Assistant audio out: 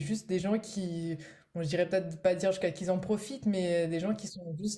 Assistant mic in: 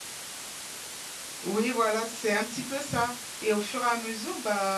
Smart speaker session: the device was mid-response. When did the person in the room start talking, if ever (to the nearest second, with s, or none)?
1 s